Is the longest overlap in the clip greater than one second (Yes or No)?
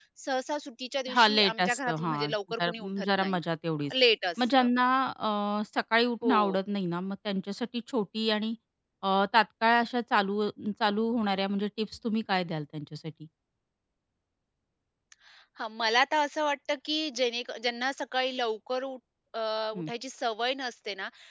Yes